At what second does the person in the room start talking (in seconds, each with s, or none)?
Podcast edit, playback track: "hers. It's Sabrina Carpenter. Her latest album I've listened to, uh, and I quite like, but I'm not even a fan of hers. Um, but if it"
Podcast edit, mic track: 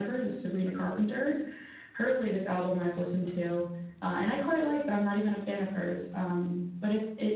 none